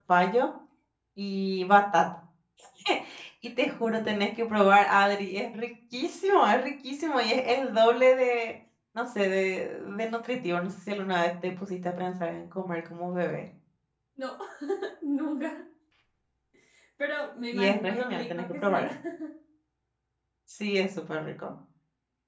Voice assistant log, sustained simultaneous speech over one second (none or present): present